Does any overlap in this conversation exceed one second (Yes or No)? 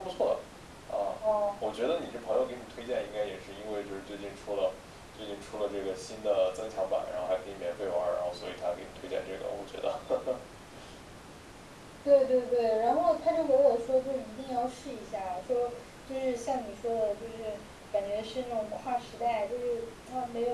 No